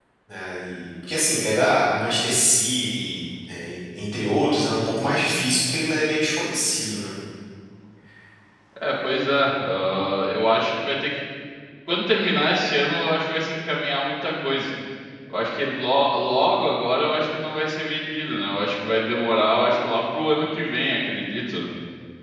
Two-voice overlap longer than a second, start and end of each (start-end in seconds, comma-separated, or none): none